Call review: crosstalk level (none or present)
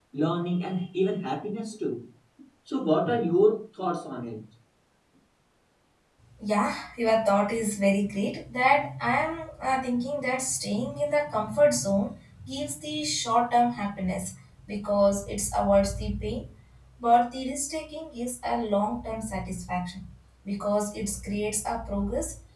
none